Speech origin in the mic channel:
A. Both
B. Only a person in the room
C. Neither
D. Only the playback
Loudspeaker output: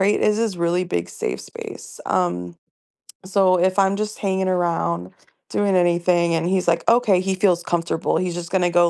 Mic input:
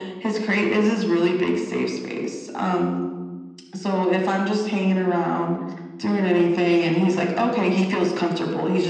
D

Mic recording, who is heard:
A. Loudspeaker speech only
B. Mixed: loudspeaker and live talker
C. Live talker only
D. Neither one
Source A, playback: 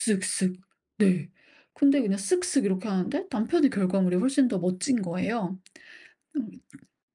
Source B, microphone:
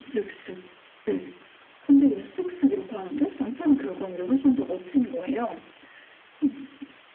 A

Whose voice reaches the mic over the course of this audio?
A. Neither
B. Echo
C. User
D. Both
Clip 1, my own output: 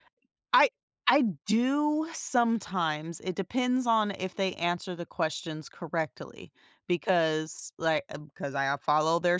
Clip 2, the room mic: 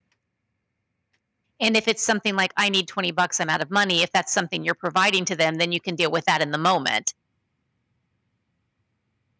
C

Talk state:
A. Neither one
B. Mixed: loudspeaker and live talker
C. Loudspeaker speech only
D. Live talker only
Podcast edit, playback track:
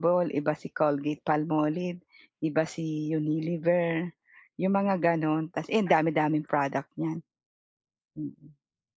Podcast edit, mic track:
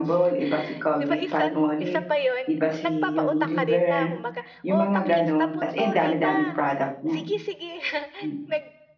B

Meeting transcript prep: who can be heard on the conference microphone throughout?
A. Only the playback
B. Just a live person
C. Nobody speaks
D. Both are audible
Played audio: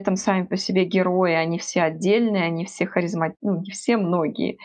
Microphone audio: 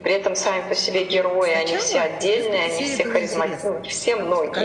D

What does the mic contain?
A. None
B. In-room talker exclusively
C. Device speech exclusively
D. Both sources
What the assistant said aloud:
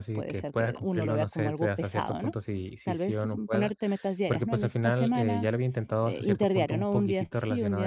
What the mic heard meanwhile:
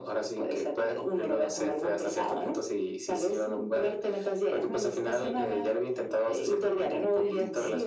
D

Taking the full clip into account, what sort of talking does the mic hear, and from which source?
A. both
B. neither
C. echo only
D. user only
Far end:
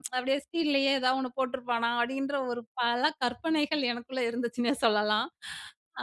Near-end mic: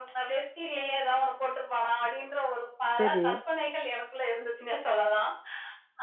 A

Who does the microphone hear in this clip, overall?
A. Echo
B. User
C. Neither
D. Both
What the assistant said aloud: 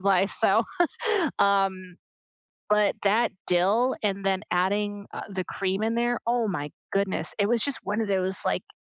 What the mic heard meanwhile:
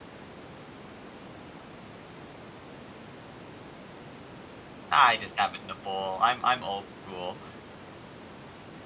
B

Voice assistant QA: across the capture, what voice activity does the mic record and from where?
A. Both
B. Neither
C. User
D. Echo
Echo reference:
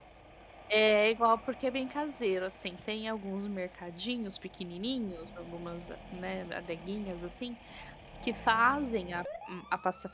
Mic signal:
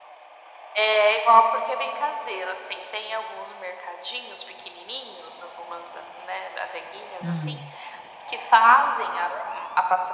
A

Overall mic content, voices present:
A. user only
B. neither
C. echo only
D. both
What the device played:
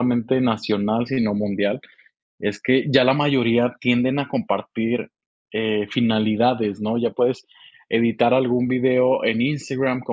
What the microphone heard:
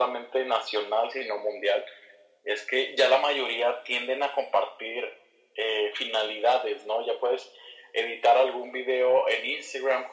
C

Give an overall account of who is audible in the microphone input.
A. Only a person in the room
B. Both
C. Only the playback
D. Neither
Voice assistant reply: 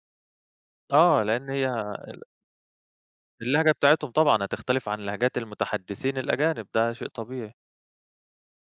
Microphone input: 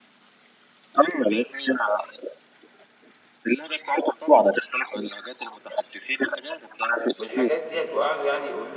B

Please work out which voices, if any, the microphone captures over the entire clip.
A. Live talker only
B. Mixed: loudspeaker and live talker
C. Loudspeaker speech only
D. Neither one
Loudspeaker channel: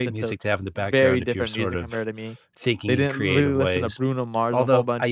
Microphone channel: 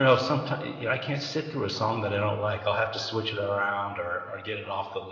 A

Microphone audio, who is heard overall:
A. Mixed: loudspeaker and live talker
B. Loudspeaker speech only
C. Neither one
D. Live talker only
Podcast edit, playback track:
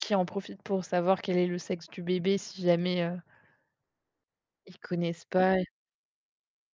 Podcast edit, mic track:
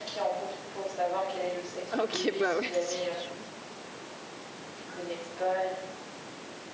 A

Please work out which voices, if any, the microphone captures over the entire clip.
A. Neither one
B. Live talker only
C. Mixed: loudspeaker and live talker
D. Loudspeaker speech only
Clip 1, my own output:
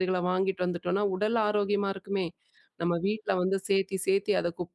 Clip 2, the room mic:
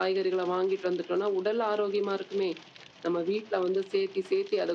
D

